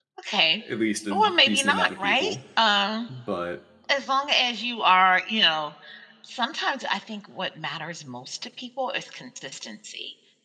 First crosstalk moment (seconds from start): 1.1 s

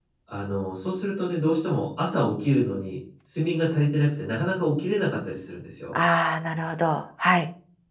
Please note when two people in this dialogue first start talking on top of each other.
none

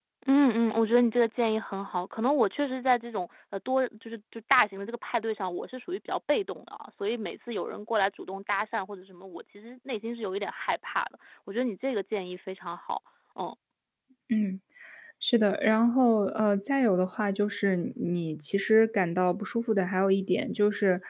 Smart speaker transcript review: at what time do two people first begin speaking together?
none

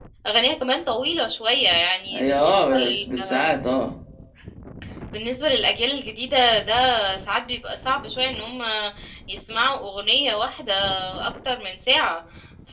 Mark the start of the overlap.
2.1 s

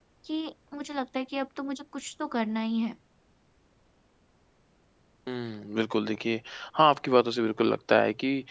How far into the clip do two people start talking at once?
none

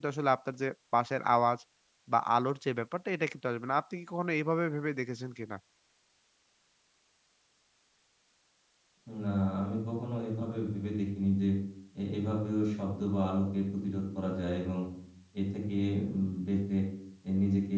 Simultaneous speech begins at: none

